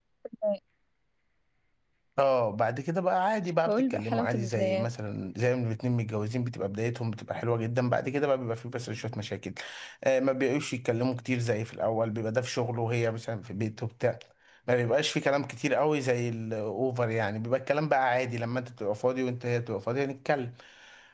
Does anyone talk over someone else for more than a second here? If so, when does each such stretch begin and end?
3.7-4.9

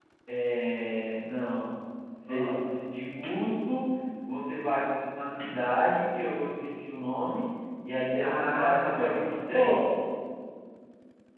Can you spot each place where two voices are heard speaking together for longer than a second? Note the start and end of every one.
8.2-9.8

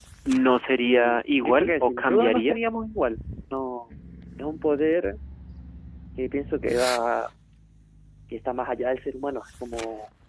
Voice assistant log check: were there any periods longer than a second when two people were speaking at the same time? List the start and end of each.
0.8-2.6

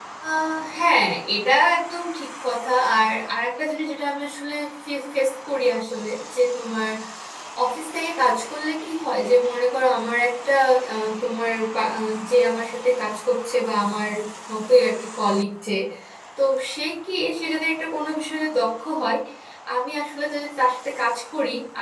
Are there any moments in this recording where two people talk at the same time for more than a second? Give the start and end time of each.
none

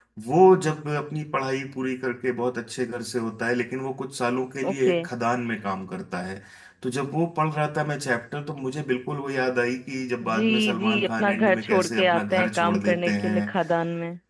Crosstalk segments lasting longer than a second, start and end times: 10.3-13.5

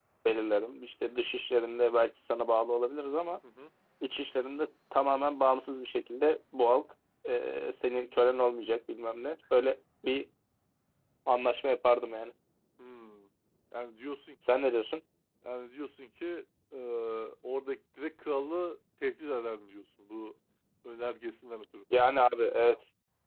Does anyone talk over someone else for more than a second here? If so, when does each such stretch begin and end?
none

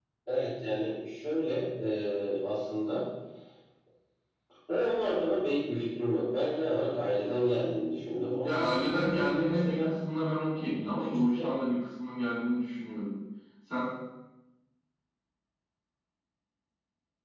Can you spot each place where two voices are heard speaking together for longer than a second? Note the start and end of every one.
8.4-9.9

